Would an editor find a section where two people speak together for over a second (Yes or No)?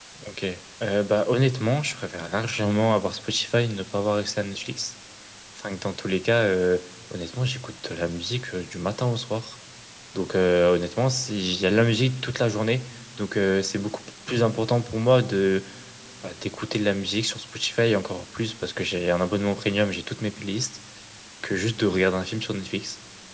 No